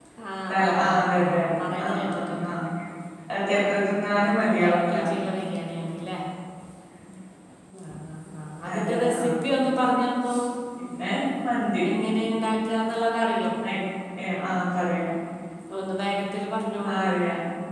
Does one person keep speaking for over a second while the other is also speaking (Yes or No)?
Yes